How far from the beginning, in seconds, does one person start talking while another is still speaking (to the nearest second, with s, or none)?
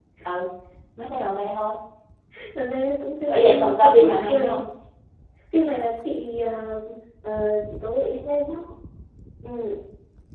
3 s